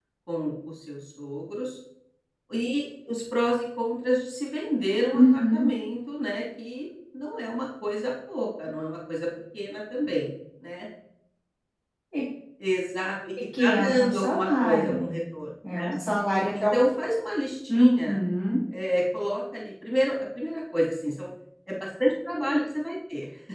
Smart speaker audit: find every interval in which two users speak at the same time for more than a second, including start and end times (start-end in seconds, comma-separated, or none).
13.6-15.1